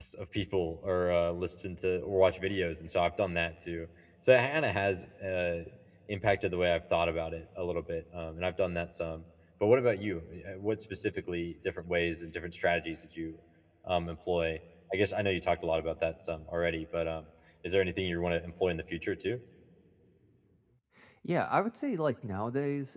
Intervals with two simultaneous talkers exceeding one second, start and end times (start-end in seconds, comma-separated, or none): none